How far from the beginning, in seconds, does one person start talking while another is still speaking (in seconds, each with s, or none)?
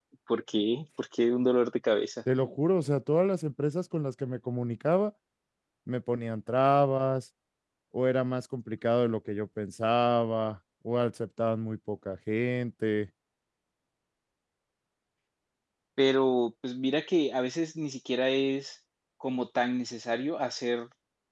none